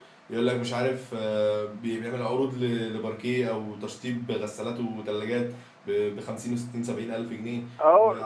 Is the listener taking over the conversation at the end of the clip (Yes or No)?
Yes